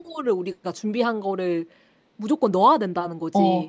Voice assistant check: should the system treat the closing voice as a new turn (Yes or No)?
Yes